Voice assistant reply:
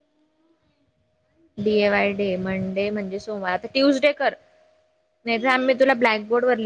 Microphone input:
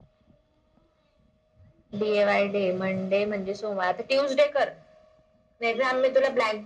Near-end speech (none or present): none